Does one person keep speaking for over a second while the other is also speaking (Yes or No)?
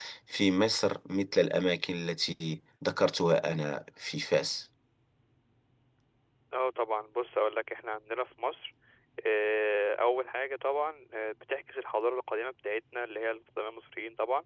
No